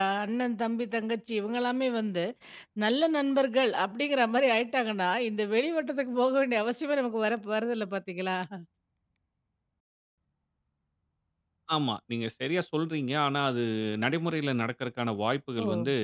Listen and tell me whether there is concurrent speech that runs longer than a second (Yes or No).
No